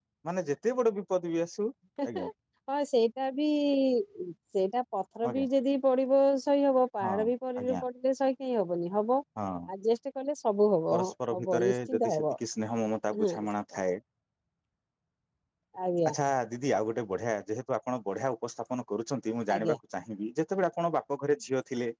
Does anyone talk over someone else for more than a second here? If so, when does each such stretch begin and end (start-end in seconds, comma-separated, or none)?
10.9-12.2